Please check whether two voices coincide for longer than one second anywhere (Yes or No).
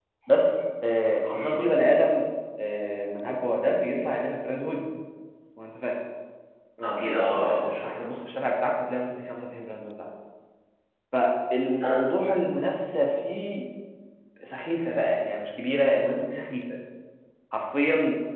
Yes